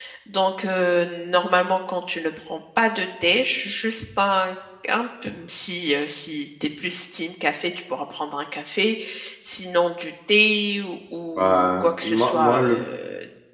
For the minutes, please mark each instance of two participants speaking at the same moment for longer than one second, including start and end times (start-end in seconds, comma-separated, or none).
11.4-12.8